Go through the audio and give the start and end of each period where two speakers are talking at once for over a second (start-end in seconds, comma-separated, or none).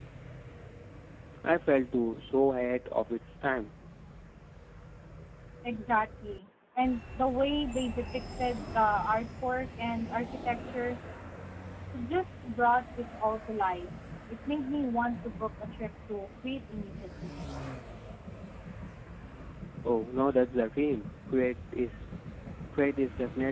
none